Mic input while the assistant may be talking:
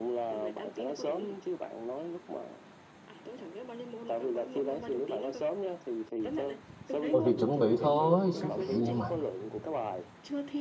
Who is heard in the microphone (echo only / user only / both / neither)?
both